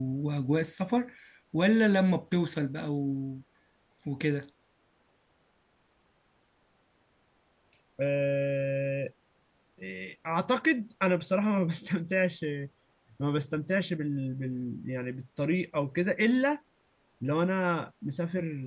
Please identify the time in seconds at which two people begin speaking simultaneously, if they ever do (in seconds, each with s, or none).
none